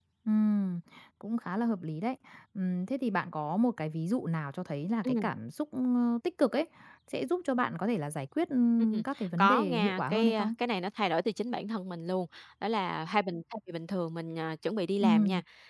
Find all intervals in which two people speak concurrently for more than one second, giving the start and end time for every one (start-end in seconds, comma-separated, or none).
8.8-10.5